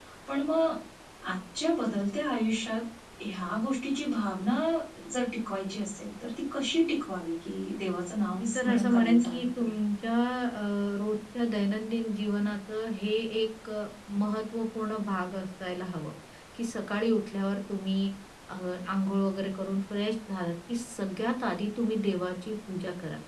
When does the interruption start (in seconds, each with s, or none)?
8.3 s